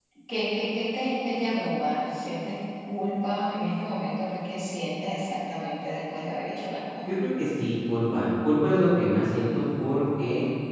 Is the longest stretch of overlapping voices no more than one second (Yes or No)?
Yes